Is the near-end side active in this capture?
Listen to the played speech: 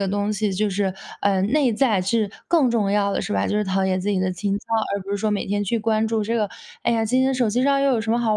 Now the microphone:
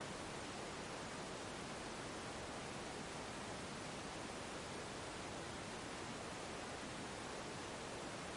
No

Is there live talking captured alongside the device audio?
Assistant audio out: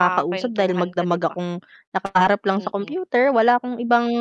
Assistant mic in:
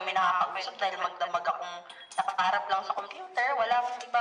No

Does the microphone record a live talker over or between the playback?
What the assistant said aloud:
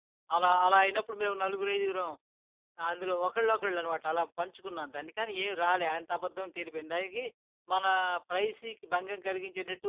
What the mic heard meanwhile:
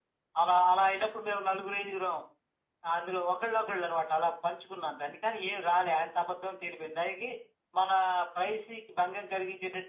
No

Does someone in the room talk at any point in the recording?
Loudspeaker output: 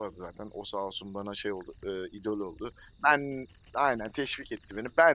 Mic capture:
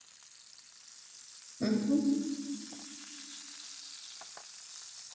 Yes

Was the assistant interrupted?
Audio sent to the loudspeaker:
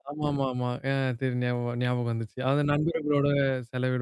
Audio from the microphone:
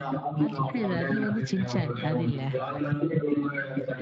Yes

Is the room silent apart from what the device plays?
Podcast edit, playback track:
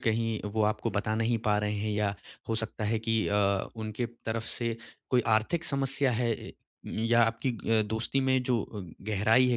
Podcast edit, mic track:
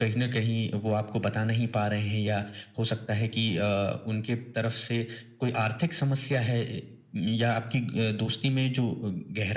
Yes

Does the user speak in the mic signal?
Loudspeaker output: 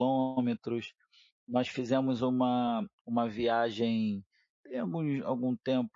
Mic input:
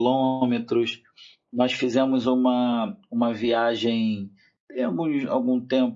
No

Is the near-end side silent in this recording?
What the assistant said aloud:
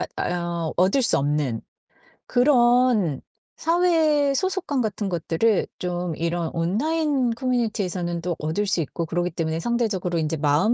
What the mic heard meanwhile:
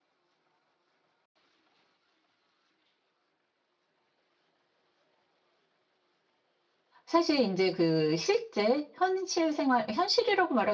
No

